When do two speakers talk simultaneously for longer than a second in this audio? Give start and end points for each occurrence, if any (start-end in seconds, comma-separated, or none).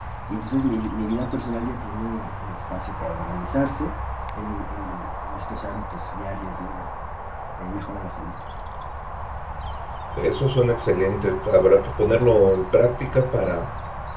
none